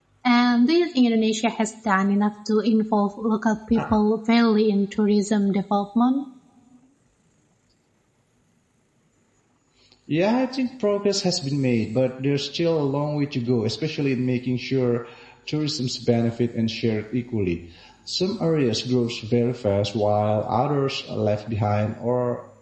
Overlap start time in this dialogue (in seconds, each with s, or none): none